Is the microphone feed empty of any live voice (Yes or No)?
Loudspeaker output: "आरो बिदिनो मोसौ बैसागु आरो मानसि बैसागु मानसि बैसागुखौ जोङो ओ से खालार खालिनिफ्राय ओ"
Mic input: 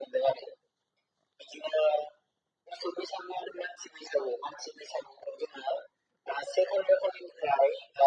Yes